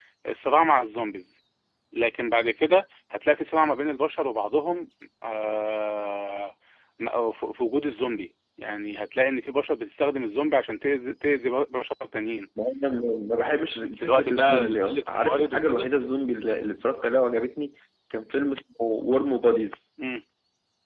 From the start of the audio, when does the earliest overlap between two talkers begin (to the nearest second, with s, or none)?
14 s